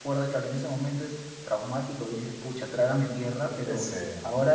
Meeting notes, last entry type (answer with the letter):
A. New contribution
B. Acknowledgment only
B